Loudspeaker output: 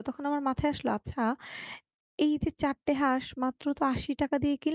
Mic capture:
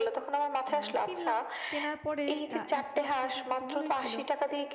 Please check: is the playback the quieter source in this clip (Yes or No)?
No